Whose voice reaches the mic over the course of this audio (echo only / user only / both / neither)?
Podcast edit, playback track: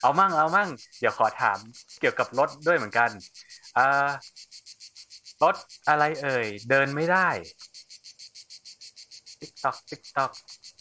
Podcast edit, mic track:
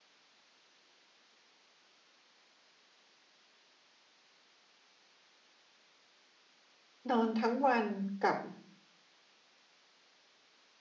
user only